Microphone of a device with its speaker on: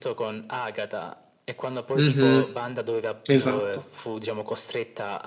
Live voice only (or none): Mhm, Esatto.